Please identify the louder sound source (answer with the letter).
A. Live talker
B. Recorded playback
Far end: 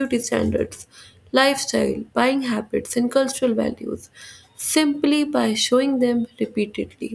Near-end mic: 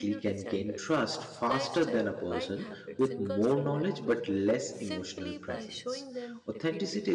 A